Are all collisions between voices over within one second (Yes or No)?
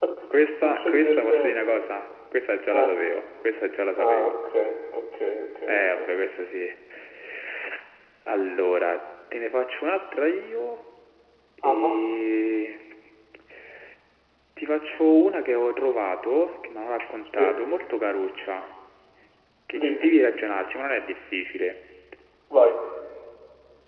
No